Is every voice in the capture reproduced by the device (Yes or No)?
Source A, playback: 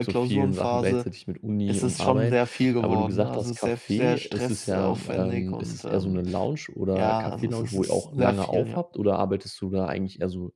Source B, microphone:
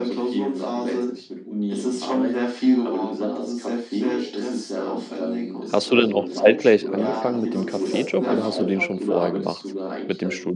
No